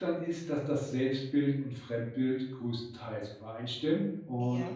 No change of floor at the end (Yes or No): Yes